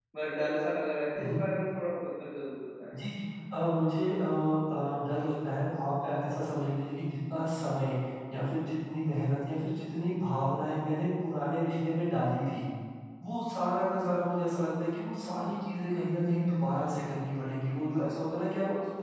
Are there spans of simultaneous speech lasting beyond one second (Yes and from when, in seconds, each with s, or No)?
No